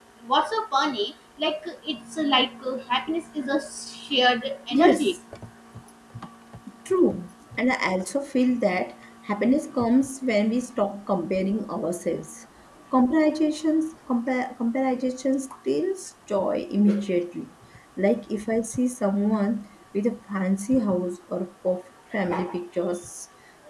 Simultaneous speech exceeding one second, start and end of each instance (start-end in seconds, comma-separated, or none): none